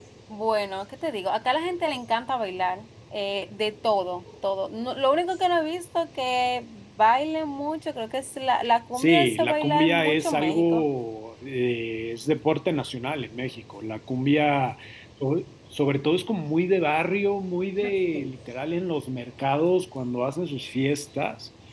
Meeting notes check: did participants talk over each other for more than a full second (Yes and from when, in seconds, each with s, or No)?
Yes, from 9.0 s